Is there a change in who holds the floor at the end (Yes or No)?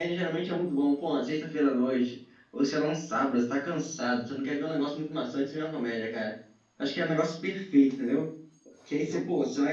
No